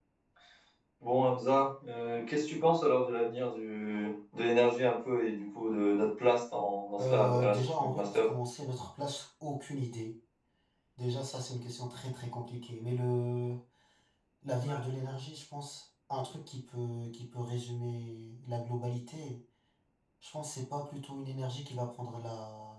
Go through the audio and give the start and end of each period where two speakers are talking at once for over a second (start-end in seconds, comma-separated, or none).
7.0-8.3